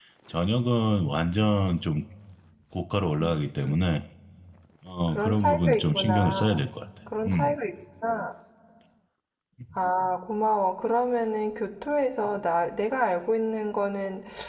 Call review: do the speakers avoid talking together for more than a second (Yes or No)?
No